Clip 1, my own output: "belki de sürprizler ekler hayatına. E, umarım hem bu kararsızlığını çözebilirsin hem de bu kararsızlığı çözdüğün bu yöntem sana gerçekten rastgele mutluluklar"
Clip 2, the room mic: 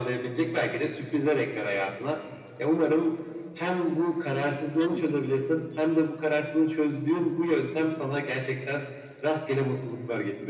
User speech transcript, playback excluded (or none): Evet.